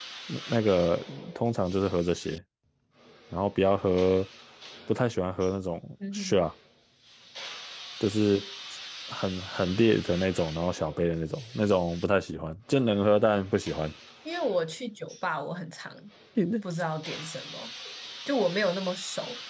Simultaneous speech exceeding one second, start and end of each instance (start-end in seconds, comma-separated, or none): none